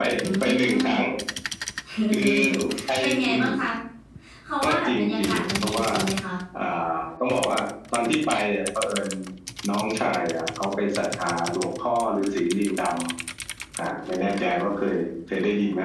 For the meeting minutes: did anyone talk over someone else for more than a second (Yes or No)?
Yes